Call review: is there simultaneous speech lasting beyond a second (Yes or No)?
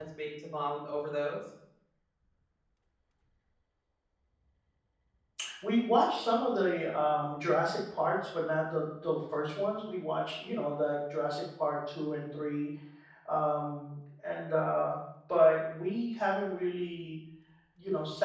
No